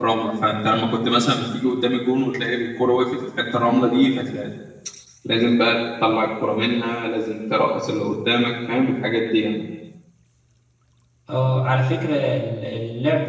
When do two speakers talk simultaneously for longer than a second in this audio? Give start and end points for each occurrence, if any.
none

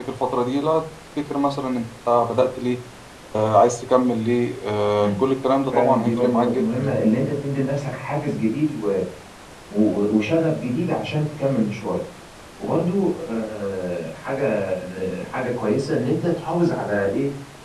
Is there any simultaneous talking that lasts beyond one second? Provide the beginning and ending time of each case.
5.7-7.0

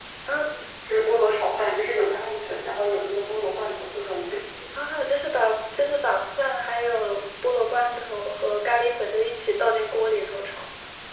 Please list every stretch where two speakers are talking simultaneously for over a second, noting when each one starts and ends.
none

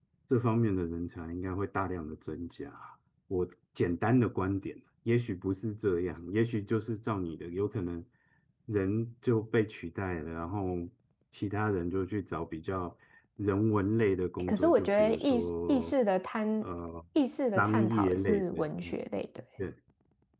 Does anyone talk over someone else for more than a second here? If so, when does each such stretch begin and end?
14.4-15.9, 17.6-19.0

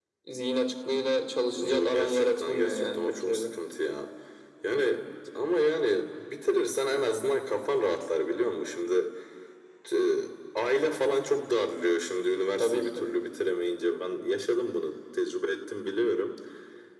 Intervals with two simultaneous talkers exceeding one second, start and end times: 1.5-3.4

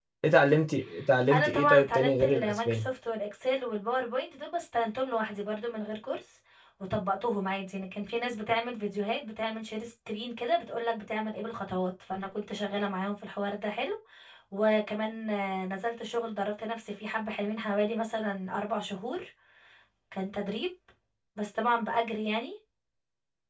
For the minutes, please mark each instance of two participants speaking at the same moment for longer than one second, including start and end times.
1.3-2.8

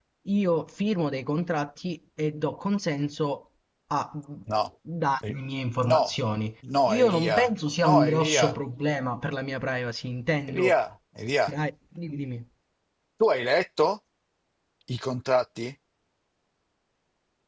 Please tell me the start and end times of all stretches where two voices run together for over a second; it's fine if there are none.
6.9-8.6

